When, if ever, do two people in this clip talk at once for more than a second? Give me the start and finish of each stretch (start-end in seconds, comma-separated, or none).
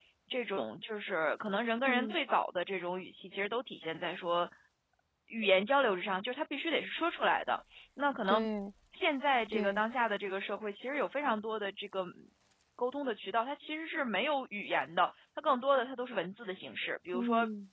none